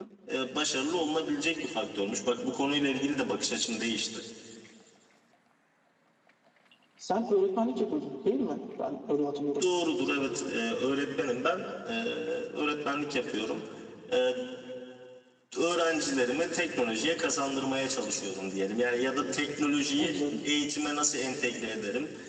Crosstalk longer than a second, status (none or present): none